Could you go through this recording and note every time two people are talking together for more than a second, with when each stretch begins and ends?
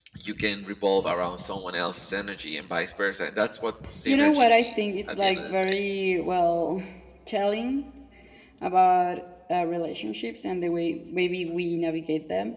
4.1-5.7

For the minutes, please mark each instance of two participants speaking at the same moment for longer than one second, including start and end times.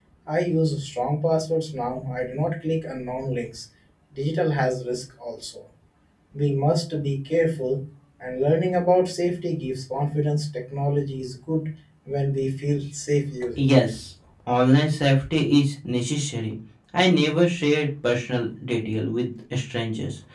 none

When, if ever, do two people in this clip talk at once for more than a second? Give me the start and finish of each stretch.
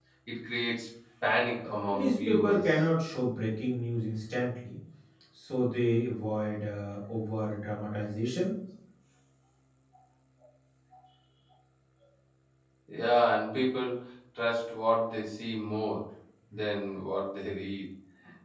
1.6-2.8

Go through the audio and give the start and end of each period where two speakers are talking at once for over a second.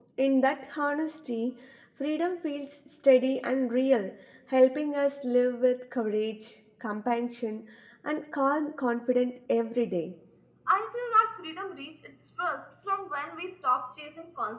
none

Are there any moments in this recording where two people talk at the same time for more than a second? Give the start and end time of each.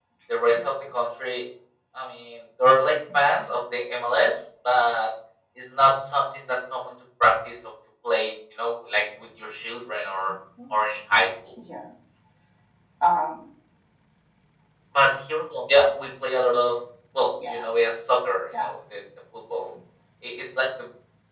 none

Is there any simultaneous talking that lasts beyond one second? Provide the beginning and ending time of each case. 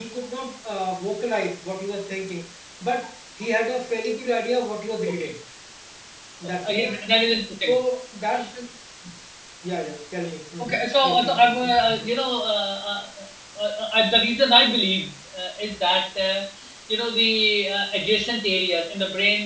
10.6-12.1

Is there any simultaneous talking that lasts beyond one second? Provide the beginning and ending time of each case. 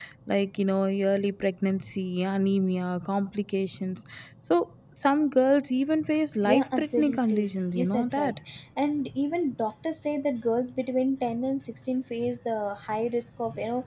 6.4-8.3

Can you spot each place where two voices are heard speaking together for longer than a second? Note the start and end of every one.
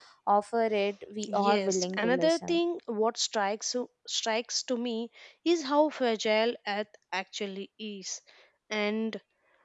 1.3-2.6

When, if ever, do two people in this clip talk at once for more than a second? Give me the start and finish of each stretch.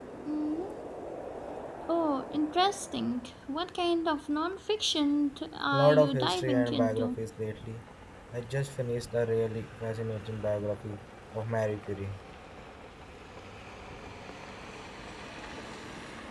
5.7-7.2

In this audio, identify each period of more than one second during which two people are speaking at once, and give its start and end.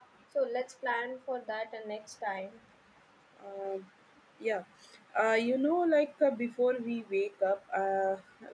none

